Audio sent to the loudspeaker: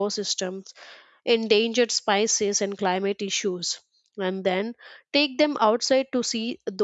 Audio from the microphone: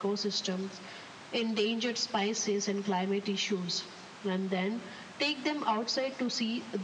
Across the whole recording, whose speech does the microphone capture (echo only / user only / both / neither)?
echo only